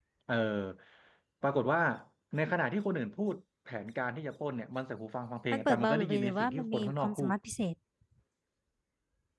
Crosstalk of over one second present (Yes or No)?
Yes